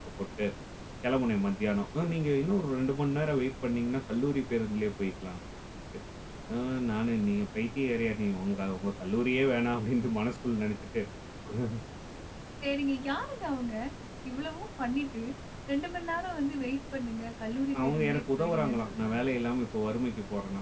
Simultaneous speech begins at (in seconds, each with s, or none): 17.7 s